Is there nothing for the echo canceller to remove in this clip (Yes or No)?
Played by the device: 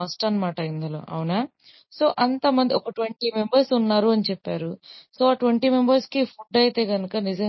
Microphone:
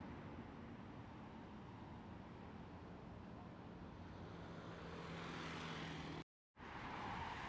Yes